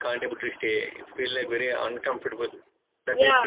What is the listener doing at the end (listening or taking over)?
taking over